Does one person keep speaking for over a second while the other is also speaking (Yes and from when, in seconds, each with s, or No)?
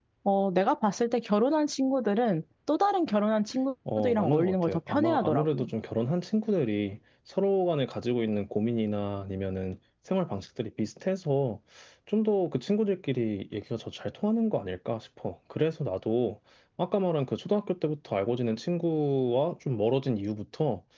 Yes, from 3.9 s